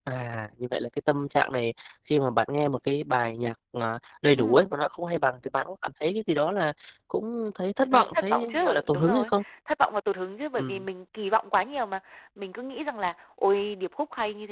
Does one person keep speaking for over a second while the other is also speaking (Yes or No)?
Yes